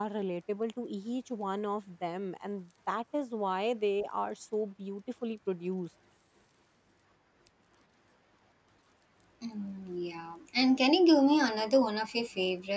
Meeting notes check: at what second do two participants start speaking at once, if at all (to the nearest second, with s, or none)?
none